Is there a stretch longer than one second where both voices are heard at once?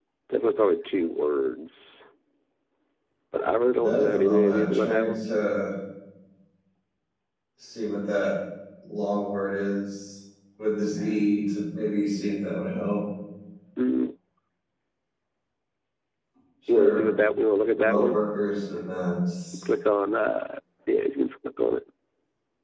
Yes, from 3.8 s

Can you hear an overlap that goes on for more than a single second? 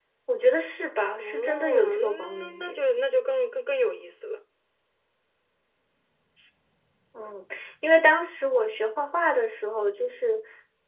Yes, from 1.2 s

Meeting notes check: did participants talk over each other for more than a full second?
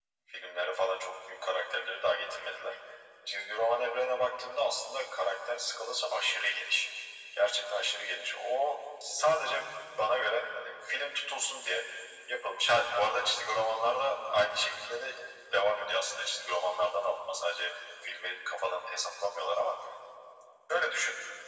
No

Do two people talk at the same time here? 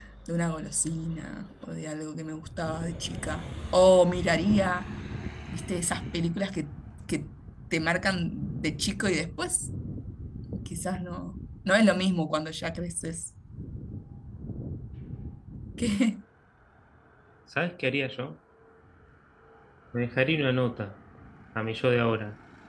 No

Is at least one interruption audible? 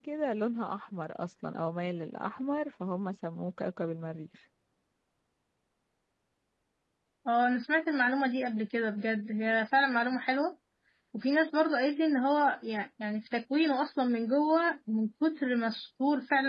No

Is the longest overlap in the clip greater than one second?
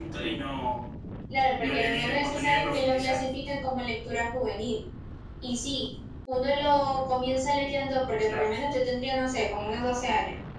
Yes, from 1.6 s

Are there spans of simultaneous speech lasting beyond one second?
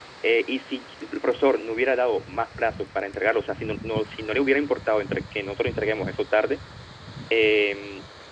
No

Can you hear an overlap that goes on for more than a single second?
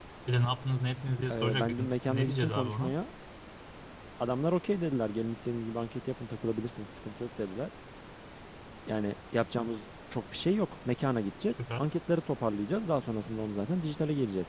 Yes, from 1.3 s

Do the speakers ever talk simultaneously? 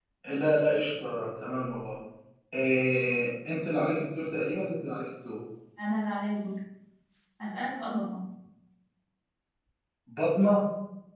No

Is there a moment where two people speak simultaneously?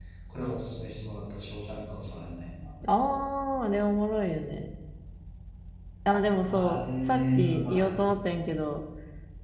Yes, from 6.5 s

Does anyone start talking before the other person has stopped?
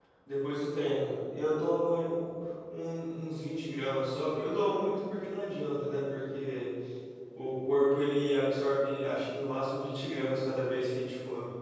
No

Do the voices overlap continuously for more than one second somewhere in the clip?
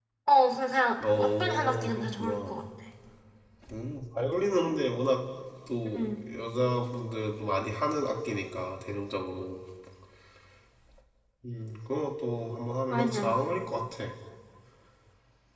Yes, from 1.2 s

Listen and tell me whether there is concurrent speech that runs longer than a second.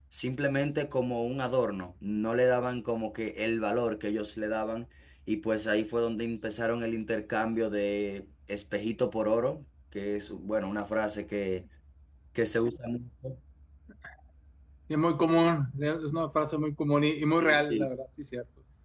No

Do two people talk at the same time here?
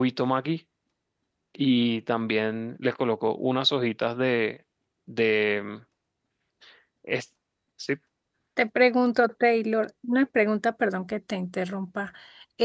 No

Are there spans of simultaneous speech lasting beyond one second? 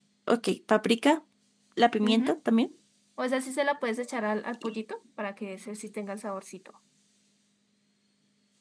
No

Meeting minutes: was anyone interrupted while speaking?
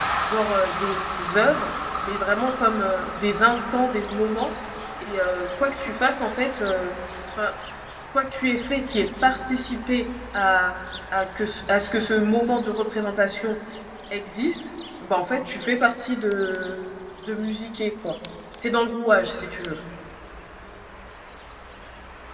No

